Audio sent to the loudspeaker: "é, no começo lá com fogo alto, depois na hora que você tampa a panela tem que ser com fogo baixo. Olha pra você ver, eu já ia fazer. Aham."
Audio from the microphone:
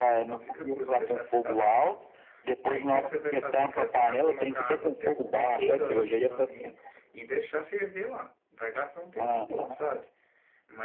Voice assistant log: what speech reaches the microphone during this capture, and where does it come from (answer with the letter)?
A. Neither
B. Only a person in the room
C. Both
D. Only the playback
C